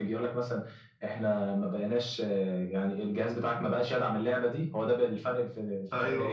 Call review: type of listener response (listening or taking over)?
taking over